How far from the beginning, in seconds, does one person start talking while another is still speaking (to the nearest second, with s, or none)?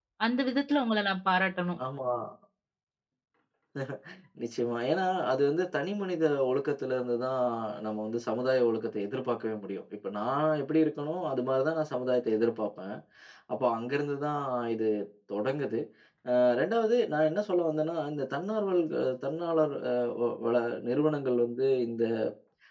none